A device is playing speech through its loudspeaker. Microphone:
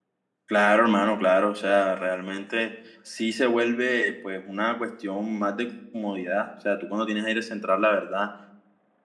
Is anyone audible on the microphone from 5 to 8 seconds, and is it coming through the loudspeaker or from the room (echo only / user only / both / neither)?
user only